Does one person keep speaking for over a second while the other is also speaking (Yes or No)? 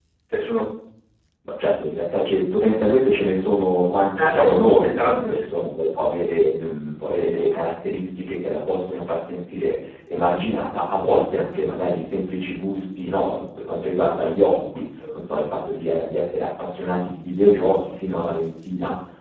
Yes